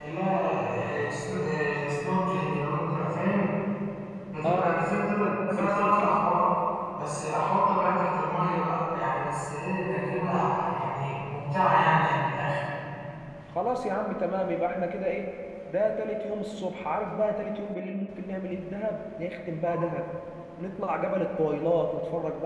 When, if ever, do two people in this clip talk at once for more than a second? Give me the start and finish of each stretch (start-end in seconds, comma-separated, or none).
4.4-6.3